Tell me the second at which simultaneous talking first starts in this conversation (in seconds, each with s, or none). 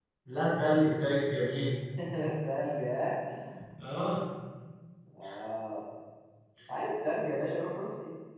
none